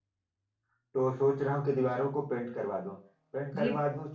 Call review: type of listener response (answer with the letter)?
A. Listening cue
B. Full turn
A